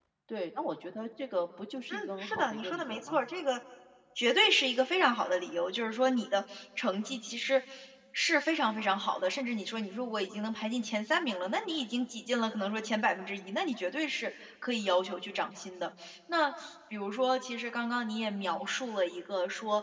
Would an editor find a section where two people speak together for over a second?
Yes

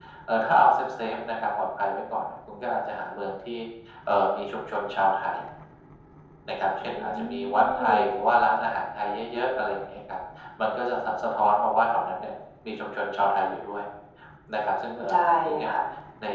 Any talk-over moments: Yes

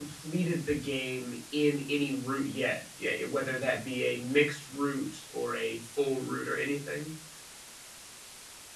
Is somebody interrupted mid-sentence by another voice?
No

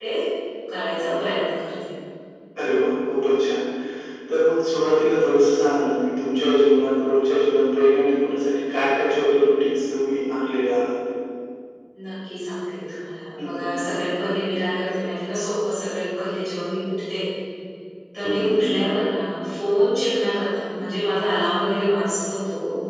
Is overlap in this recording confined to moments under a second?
Yes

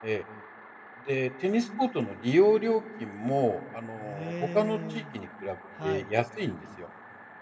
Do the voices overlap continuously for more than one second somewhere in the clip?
Yes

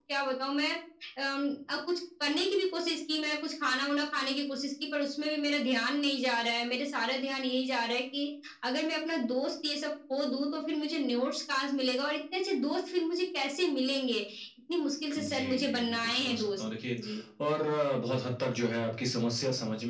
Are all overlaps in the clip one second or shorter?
No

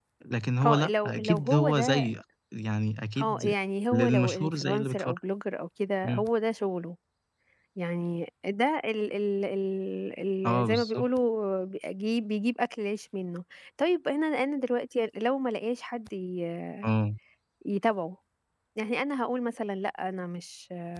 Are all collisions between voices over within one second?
No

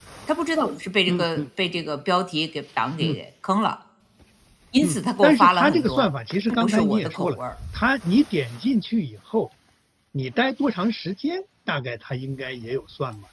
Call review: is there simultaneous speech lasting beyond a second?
Yes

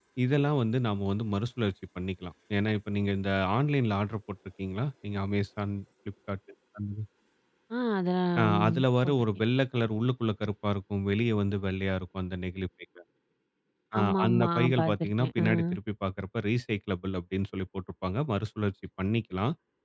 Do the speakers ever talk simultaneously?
Yes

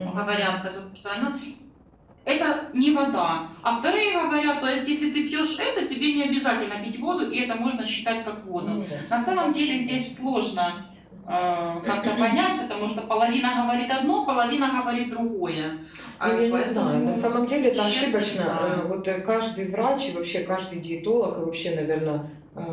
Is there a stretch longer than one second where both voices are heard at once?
Yes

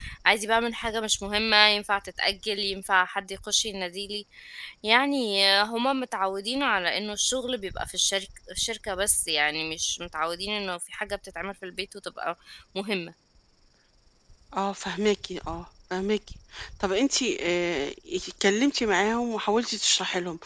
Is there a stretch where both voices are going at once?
No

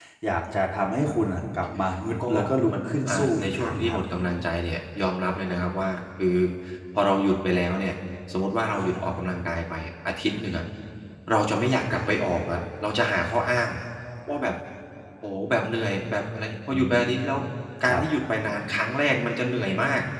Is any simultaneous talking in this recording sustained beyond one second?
Yes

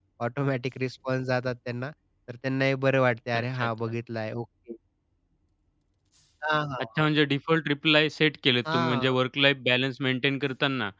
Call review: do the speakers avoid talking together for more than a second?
Yes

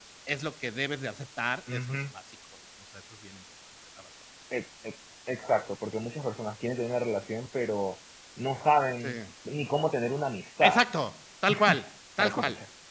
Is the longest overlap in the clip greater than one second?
No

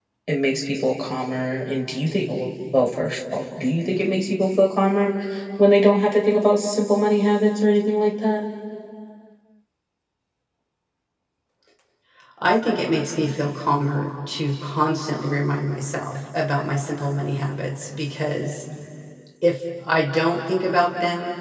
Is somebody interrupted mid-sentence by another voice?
No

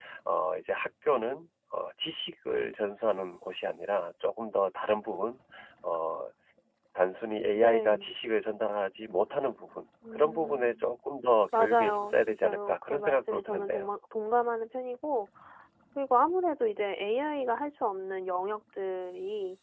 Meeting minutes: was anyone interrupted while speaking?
Yes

